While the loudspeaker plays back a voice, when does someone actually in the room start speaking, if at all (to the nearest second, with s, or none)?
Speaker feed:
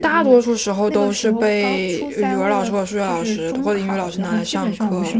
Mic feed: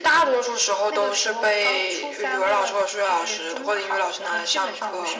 none